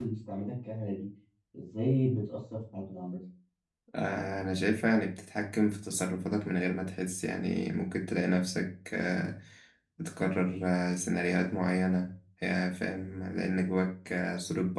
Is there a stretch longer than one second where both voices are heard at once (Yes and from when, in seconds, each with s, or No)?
No